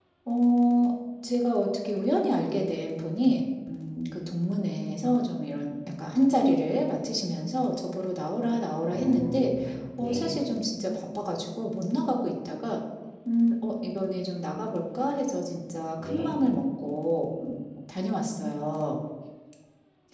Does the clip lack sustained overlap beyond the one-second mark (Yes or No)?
Yes